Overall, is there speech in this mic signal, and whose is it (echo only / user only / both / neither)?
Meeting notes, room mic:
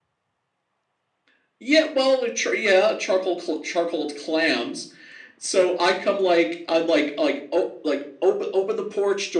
echo only